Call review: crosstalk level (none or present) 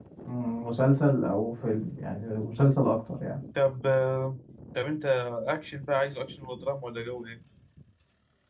none